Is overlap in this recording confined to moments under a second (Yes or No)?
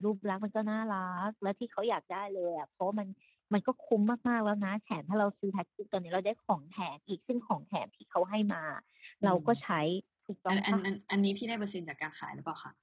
Yes